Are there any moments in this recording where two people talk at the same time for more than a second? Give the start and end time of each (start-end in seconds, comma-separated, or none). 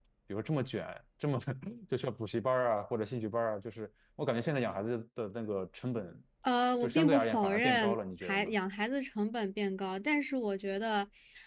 6.8-8.6